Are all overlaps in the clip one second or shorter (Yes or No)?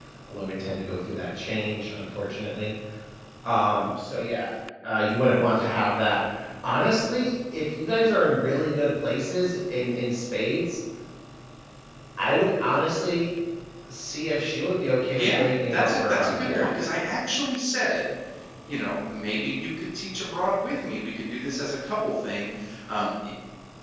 No